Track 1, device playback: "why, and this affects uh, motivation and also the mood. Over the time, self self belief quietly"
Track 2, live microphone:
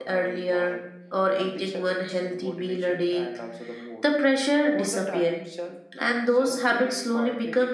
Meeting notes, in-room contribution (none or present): present